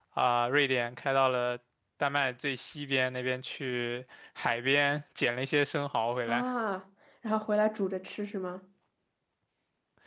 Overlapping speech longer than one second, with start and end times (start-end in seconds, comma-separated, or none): none